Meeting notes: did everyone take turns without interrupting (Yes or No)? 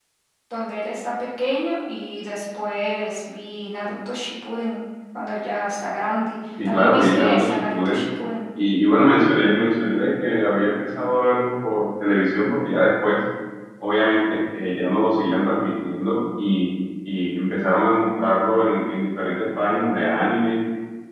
No